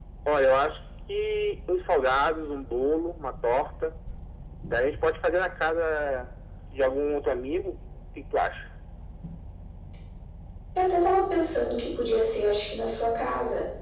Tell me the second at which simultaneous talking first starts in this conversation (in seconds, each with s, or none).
none